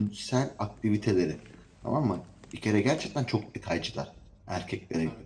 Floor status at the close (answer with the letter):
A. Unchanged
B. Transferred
A